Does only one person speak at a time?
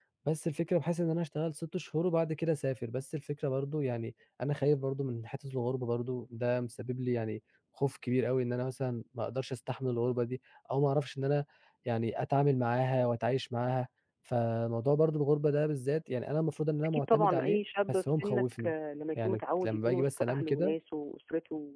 No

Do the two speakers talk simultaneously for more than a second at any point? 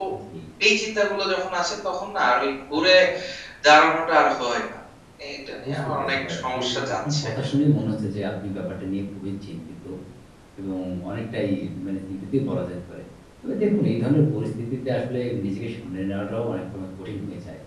Yes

